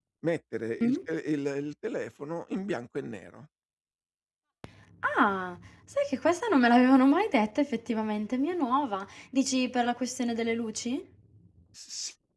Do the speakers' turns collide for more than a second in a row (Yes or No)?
No